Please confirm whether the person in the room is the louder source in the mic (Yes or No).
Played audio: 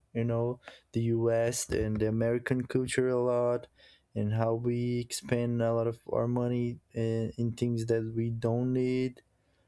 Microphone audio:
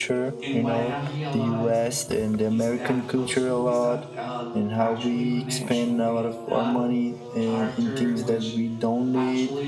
No